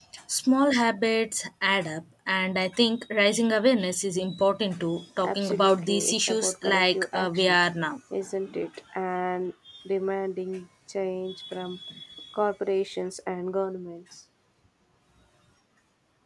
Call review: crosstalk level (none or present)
present